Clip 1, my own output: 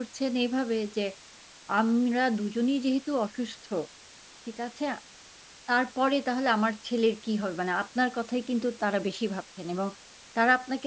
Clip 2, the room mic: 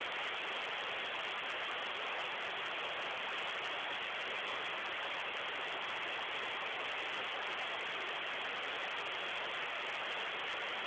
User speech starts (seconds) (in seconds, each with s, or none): none